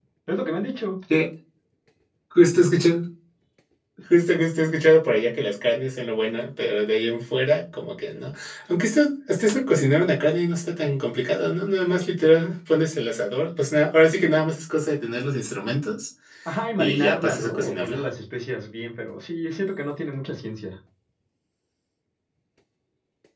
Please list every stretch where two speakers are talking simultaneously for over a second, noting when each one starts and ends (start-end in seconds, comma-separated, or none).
16.8-18.0